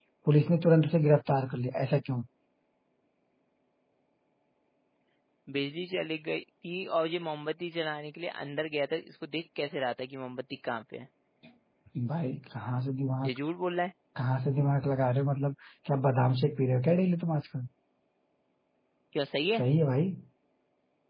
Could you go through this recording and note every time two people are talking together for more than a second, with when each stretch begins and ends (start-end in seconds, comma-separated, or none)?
none